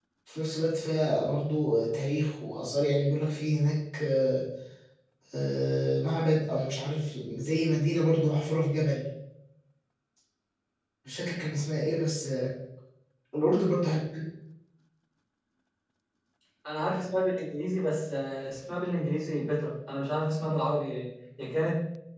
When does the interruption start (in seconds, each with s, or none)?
none